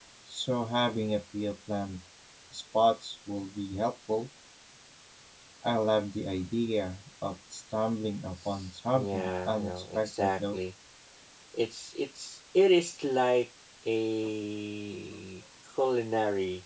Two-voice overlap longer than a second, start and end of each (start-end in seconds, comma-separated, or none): 8.9-10.6